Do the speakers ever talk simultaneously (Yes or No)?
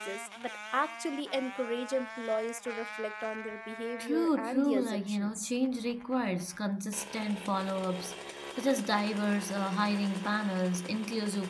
Yes